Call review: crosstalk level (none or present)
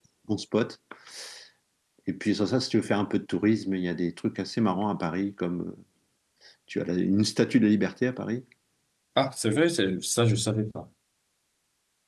none